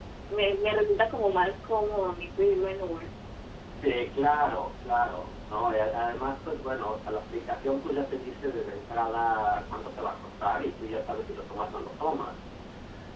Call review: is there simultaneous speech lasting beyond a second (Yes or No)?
No